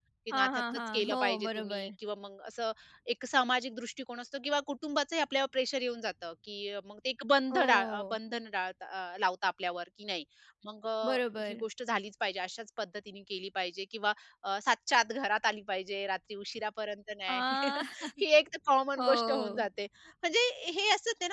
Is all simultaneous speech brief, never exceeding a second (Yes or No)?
No